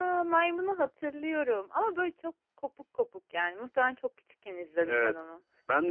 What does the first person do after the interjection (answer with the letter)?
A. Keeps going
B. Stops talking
B